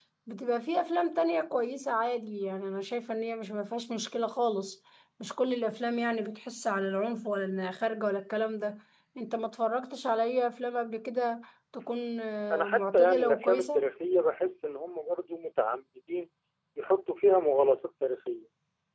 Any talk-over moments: Yes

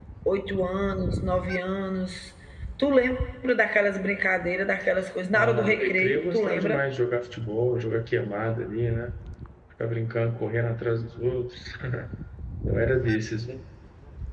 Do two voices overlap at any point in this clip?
Yes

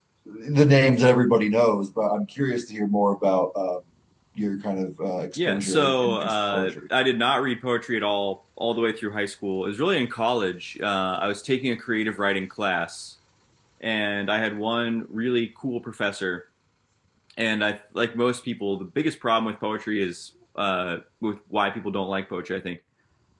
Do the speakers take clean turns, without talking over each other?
No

